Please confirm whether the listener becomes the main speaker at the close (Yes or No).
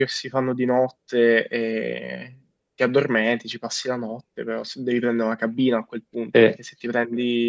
No